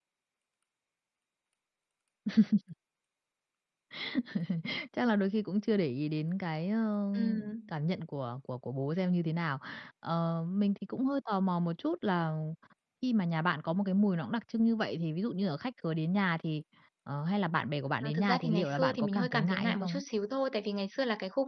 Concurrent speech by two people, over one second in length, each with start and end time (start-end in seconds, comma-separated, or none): 18.0-20.0